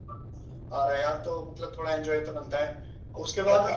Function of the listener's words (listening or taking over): listening